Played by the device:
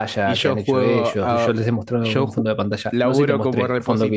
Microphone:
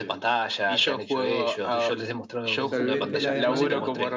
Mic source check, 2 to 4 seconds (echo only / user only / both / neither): both